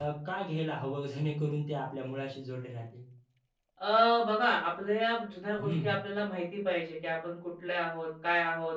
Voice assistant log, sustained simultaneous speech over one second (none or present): none